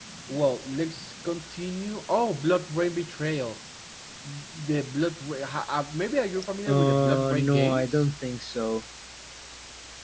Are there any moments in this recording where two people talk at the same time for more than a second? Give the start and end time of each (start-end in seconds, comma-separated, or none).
6.7-8.0